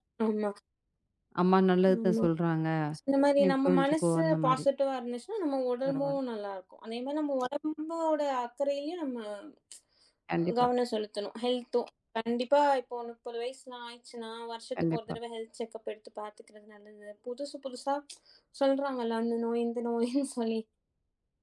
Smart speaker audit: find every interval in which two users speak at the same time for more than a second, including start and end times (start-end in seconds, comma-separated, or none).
3.4-4.7